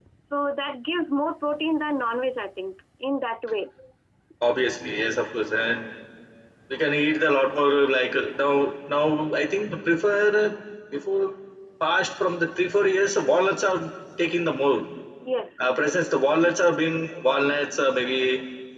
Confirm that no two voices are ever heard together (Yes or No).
Yes